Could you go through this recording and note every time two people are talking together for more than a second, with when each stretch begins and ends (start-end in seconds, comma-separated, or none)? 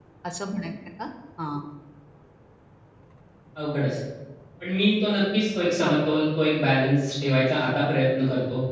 none